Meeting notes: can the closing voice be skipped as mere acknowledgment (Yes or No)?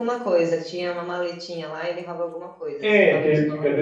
No